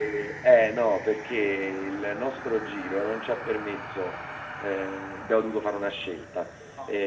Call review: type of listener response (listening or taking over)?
listening